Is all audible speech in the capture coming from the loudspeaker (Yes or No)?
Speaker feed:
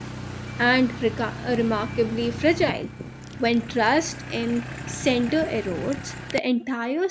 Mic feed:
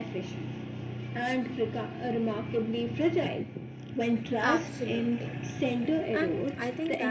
No